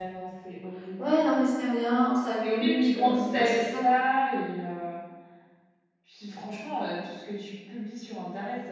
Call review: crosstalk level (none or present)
present